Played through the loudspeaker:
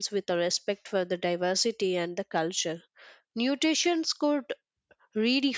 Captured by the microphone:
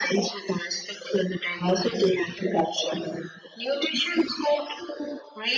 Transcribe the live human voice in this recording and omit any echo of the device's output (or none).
none